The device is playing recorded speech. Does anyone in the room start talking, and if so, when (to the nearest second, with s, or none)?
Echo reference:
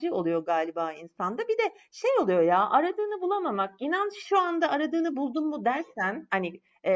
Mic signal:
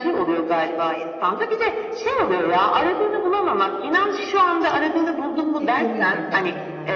6 s